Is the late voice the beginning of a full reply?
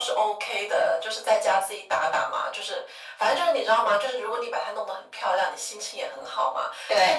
No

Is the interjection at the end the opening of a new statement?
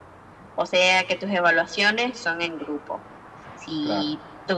No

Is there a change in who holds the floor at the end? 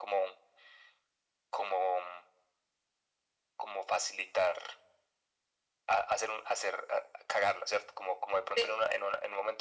No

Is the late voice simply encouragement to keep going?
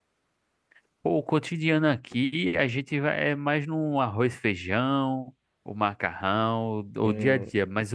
Yes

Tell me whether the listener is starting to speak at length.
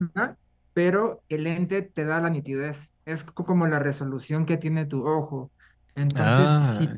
No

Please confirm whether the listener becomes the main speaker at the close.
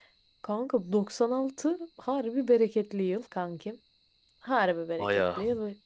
No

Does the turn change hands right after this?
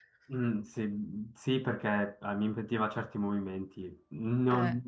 No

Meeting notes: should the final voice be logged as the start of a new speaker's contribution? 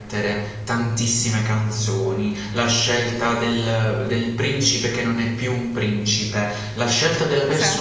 No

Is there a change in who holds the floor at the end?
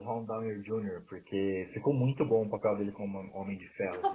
Yes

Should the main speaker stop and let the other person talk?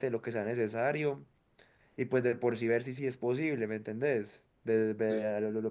No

